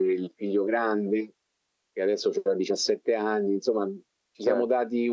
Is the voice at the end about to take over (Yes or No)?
No